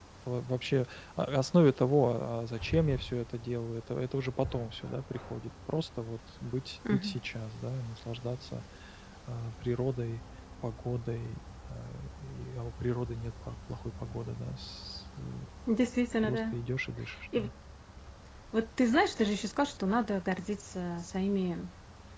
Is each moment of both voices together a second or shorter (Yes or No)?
Yes